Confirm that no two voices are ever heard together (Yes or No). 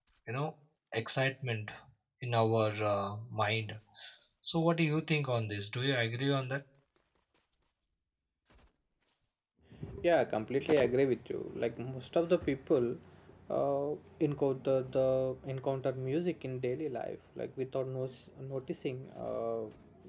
Yes